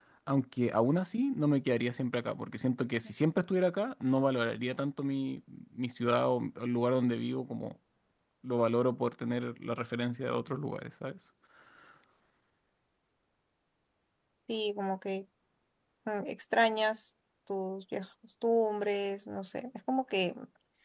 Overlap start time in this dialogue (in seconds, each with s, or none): none